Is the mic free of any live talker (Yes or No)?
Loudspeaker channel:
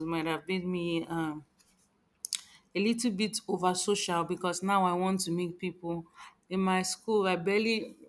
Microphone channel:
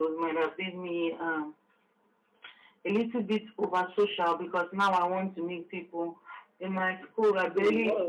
No